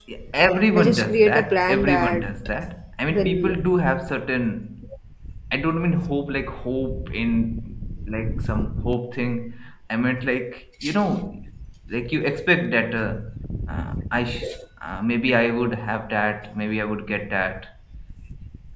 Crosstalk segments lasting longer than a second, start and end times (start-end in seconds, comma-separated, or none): 0.8-2.3